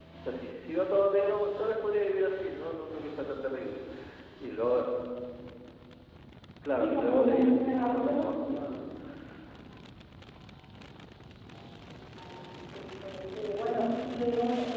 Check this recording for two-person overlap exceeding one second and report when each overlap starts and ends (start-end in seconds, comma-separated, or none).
6.8-8.5